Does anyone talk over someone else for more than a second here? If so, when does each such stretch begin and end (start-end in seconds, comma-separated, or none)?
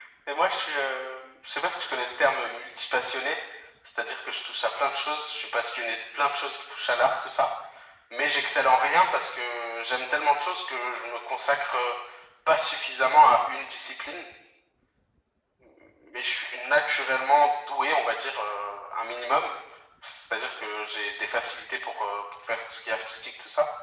none